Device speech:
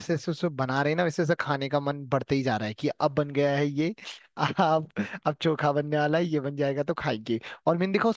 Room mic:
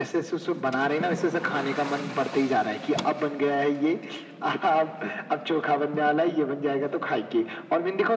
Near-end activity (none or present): none